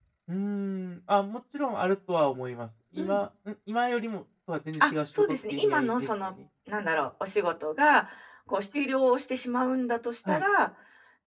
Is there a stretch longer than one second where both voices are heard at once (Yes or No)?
Yes